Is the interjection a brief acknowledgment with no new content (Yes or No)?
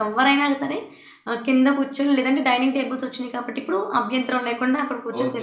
No